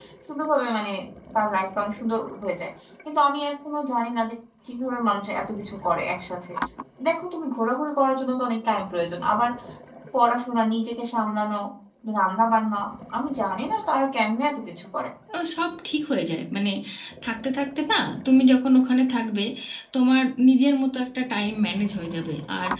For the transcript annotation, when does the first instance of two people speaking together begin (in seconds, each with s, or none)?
none